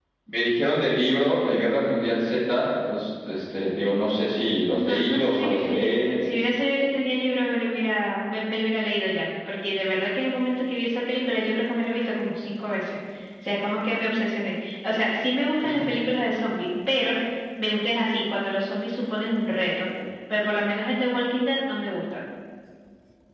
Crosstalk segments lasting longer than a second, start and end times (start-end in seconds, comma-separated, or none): 4.7-6.1